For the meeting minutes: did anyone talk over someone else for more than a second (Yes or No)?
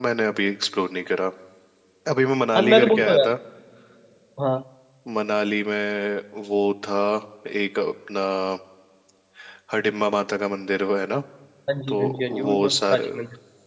Yes